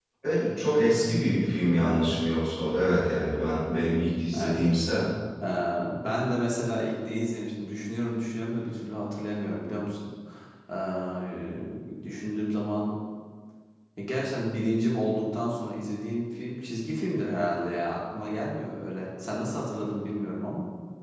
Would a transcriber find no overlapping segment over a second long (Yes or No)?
Yes